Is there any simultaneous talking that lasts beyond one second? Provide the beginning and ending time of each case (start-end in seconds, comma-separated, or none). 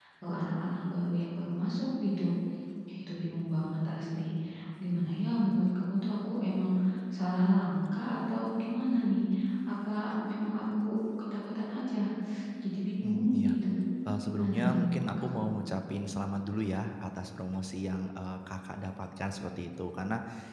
14.3-15.5